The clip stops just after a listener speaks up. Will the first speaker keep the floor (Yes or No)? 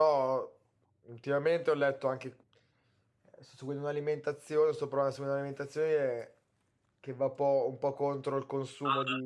No